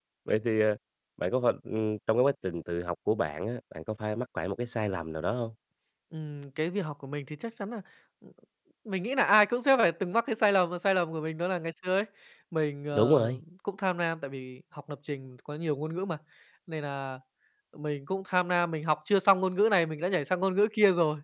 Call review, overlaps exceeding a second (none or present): none